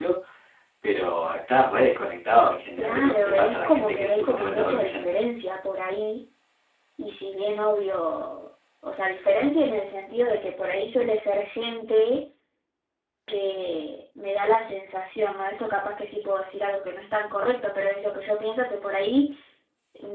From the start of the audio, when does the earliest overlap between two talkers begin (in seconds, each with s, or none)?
2.8 s